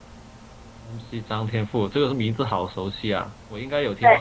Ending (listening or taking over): taking over